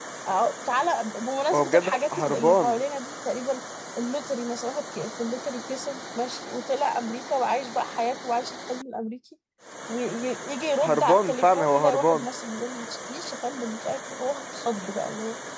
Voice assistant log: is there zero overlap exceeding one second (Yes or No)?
No